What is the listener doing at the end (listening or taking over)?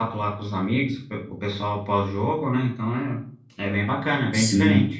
taking over